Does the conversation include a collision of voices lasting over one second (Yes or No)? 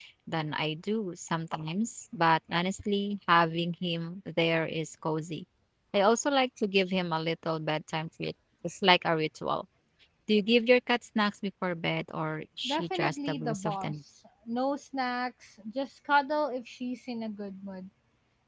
Yes